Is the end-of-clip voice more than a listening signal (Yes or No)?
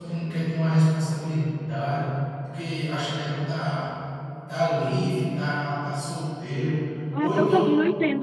Yes